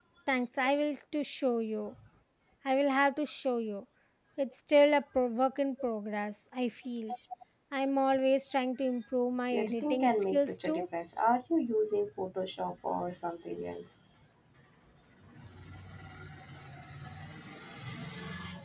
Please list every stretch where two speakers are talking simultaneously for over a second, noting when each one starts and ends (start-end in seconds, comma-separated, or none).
9.5-10.9